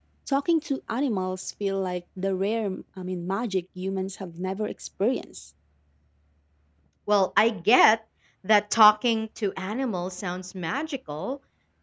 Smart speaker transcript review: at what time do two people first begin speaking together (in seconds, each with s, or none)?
none